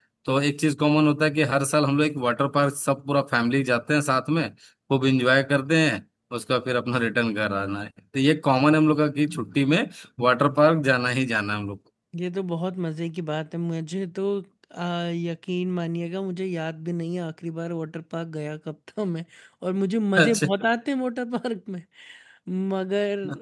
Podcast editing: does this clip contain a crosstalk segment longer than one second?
No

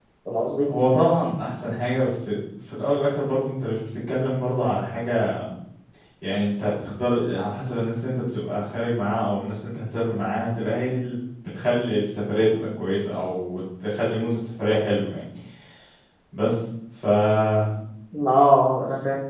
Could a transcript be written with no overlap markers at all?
Yes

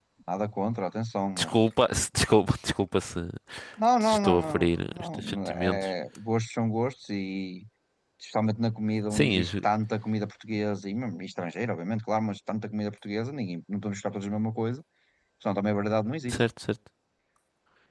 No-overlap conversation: No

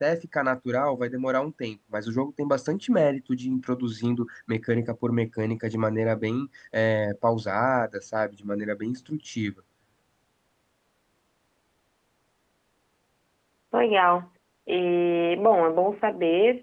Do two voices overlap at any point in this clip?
No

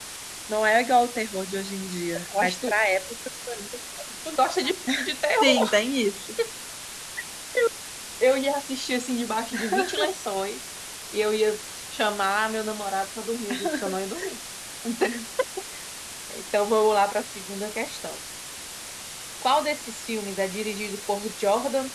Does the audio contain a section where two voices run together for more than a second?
No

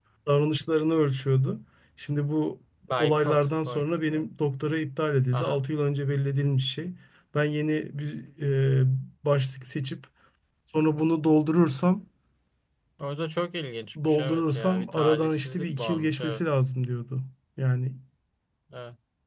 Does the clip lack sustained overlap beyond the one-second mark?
No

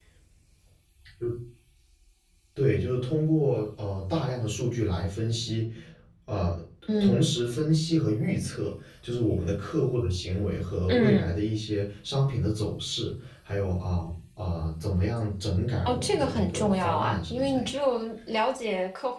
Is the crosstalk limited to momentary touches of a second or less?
No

